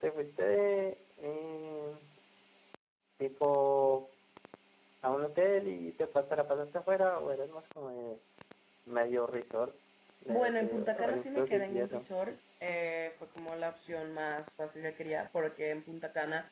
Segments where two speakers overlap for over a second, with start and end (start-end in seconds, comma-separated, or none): 10.3-12.1